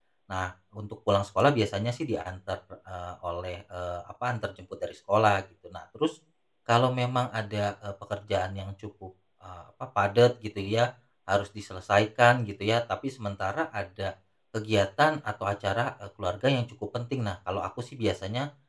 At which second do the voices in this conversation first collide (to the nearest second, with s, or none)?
none